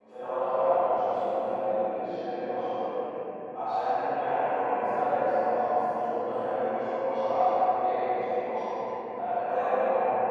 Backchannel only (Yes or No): Yes